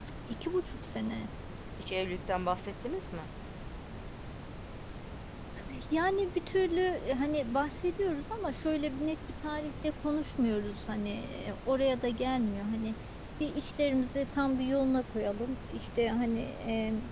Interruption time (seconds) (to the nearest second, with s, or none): none